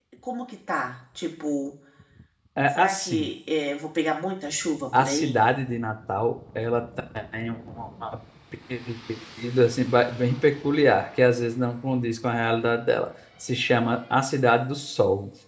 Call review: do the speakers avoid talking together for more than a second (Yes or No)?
Yes